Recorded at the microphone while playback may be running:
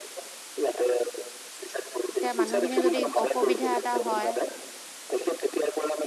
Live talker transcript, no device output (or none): এতিয়া মানুহখিনি যদি অসুবিধা এটা হয়